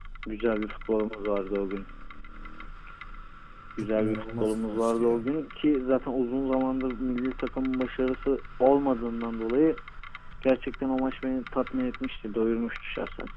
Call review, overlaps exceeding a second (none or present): present